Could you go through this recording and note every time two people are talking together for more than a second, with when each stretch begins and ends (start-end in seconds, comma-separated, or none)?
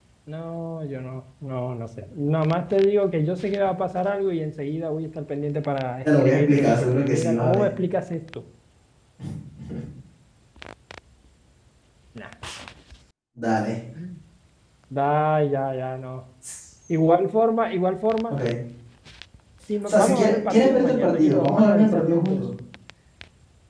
6.0-7.7, 19.9-22.4